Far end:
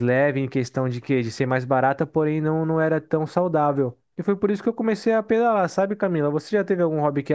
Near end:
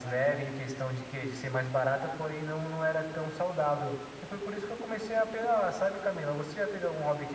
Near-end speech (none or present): none